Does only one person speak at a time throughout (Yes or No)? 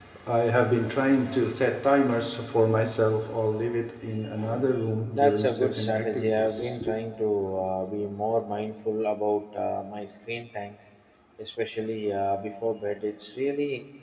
No